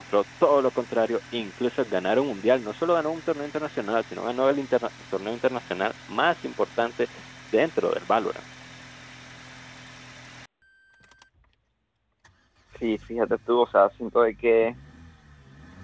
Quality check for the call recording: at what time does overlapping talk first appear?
none

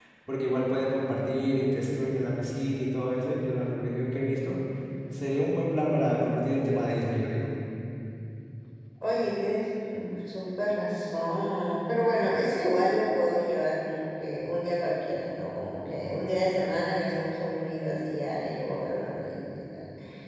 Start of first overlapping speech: none

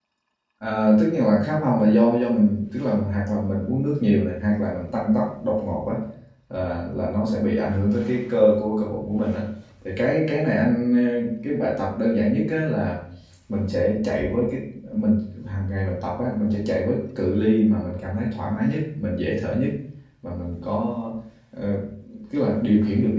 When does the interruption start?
none

